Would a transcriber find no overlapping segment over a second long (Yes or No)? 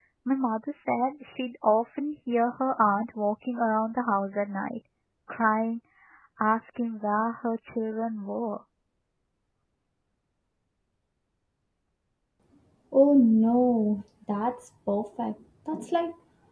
Yes